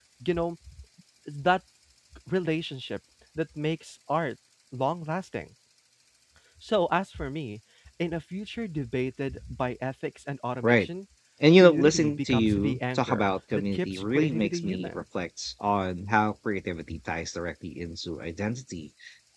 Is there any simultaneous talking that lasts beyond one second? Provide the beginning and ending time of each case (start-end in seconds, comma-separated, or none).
11.6-15.0